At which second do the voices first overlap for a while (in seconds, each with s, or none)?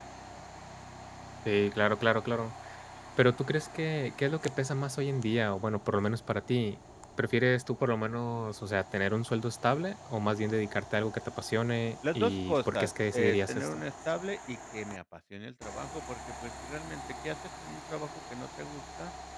12.0 s